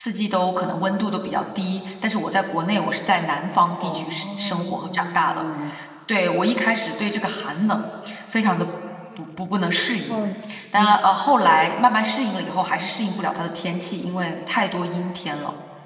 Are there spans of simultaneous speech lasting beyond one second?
Yes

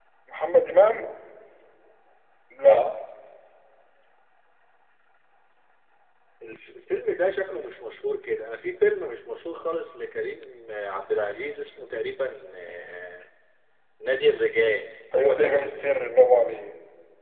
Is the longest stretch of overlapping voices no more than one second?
Yes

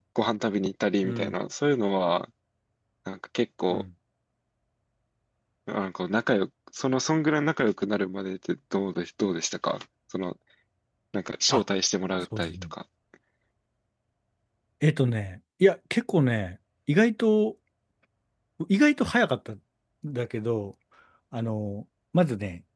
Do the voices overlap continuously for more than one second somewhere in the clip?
No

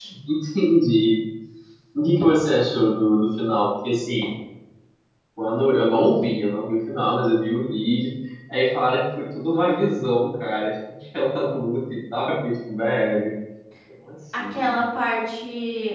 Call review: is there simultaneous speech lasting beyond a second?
No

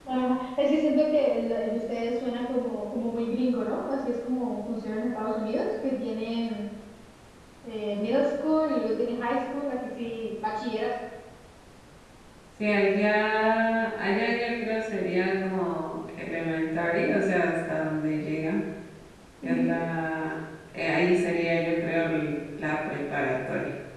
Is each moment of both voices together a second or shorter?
Yes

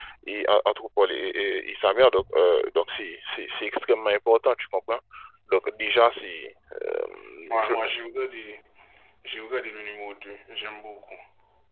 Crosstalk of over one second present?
No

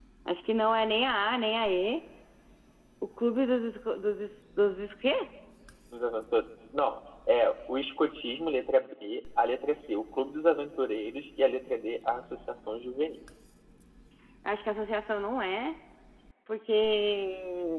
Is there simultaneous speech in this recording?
No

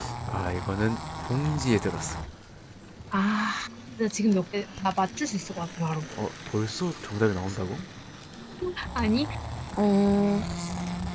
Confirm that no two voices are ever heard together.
Yes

